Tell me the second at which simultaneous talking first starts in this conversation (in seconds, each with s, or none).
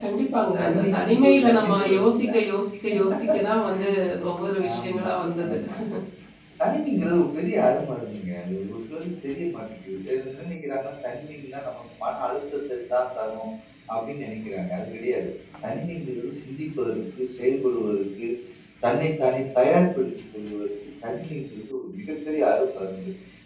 0.6 s